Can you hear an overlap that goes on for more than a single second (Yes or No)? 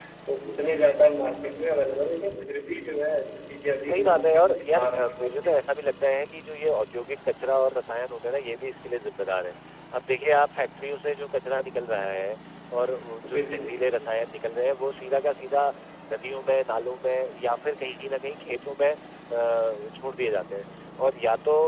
Yes